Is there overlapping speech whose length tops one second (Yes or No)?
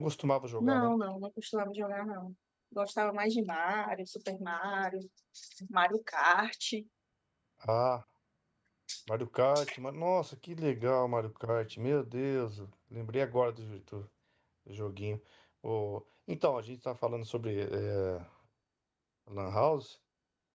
No